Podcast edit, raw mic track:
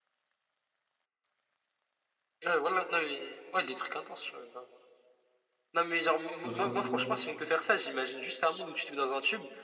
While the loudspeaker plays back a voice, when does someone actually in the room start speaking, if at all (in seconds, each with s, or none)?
6.4 s